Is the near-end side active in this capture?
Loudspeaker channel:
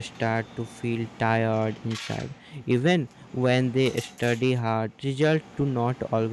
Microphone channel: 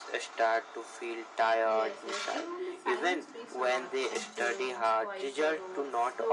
Yes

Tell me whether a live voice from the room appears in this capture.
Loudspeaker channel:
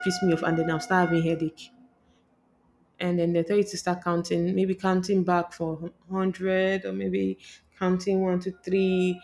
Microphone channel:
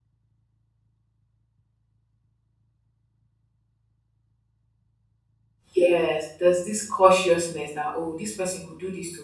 Yes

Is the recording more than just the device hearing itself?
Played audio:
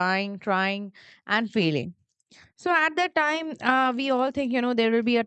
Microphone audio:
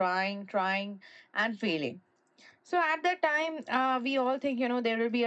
No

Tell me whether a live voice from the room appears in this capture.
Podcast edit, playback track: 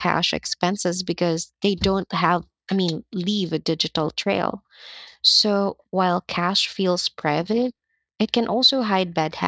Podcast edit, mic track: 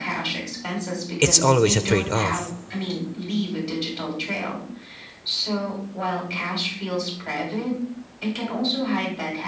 Yes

